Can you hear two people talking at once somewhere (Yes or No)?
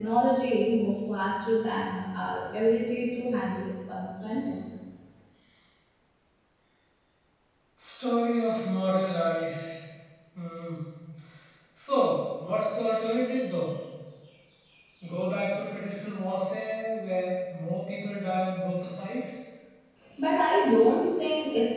No